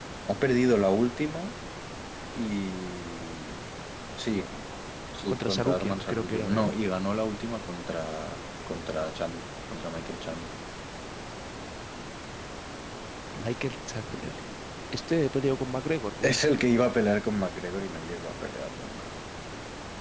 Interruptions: present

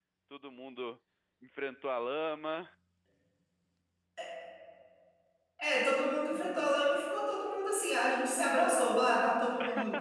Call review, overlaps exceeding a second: none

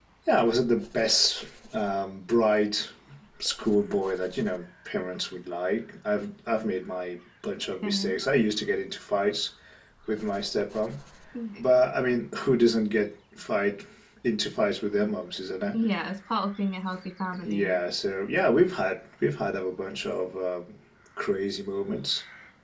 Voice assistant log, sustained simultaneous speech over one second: none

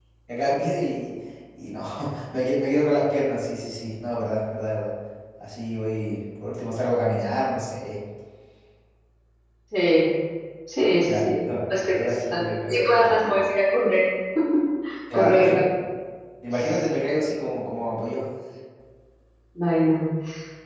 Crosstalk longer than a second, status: present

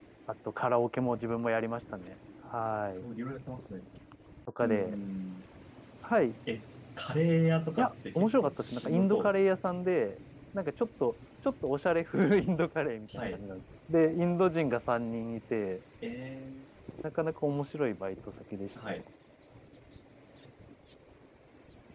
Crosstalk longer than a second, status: present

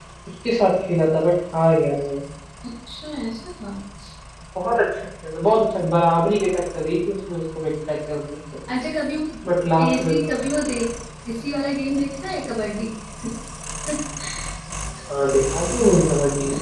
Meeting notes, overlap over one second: none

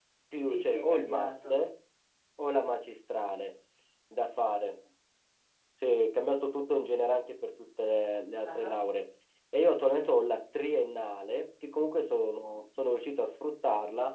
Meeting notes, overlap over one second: present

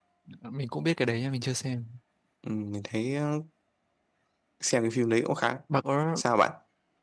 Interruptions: none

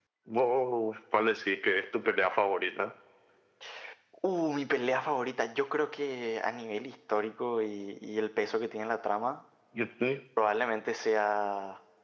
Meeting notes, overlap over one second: none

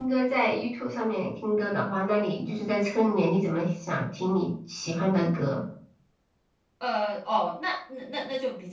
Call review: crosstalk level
none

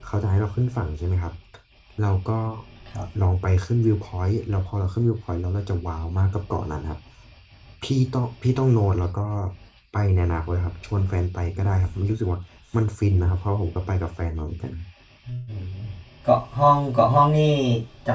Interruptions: none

